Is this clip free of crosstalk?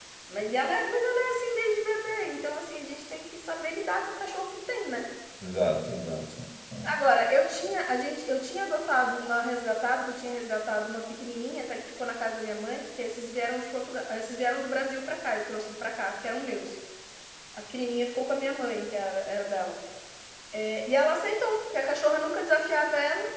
Yes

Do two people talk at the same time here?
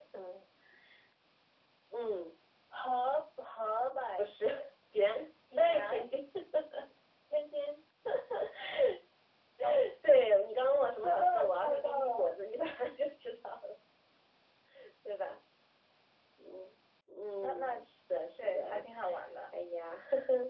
Yes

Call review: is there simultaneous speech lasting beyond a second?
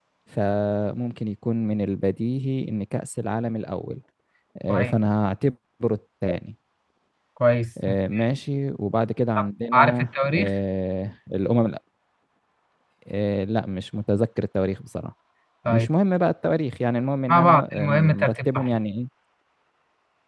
Yes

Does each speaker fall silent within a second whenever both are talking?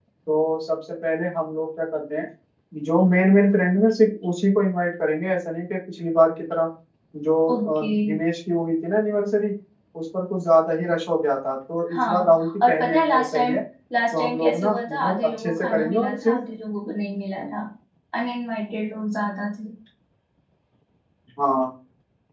No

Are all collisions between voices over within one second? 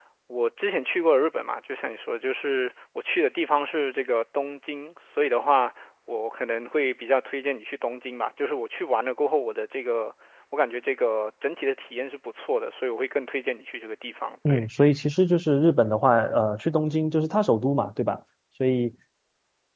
Yes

